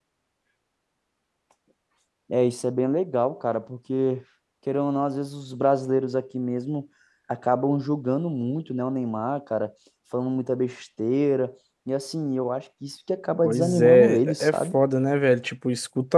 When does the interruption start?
13.4 s

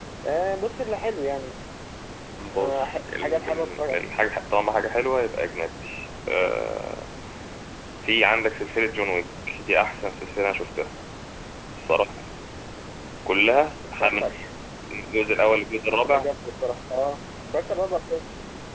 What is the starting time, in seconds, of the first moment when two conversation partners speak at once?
2.5 s

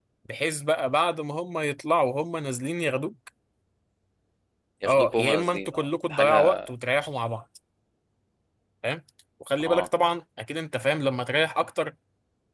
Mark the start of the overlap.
4.8 s

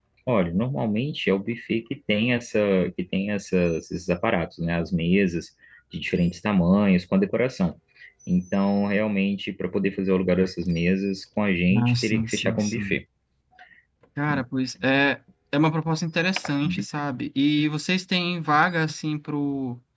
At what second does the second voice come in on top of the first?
11.8 s

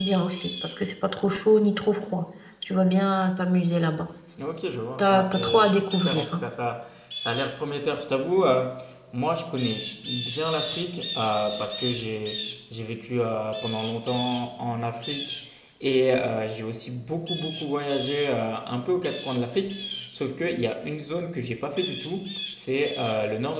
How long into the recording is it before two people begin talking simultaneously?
5.0 s

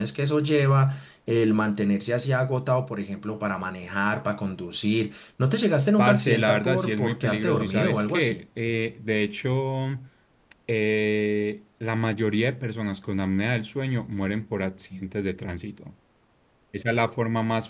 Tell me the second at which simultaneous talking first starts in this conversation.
6.0 s

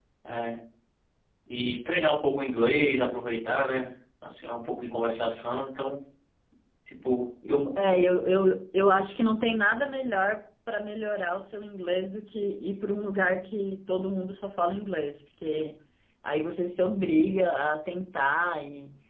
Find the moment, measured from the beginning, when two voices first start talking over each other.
none

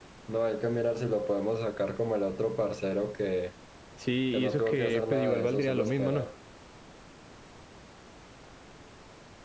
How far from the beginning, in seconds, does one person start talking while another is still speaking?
4.3 s

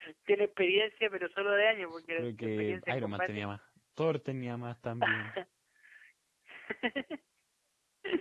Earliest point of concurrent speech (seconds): 2.2 s

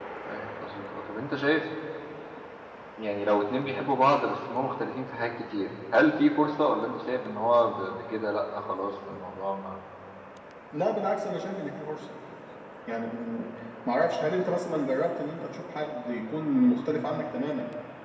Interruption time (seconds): none

